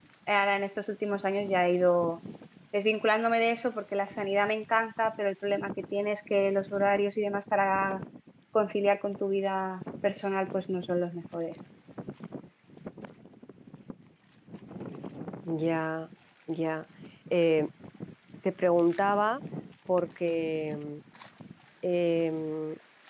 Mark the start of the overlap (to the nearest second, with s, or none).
none